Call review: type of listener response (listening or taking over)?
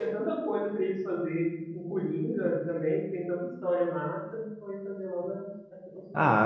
taking over